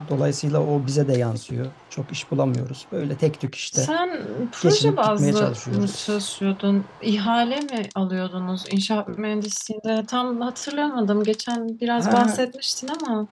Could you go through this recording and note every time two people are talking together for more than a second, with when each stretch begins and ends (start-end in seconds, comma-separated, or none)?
4.6-6.1